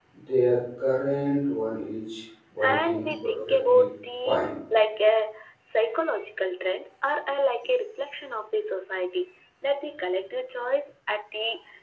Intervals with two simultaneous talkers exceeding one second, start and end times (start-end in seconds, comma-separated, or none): 2.6-3.8